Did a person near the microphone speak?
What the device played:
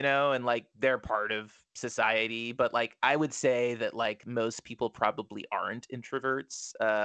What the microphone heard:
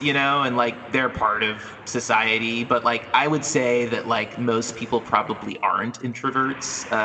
No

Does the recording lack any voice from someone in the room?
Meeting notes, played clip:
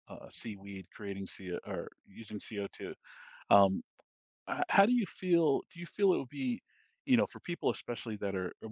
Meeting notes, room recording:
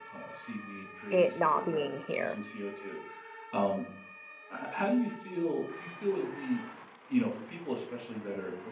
No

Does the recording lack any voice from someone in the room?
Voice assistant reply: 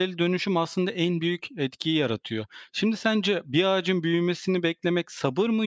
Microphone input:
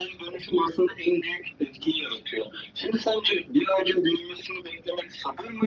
Yes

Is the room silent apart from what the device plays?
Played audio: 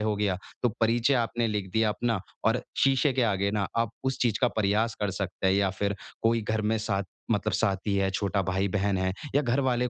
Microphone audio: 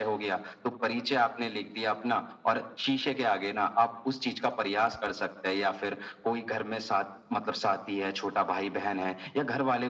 Yes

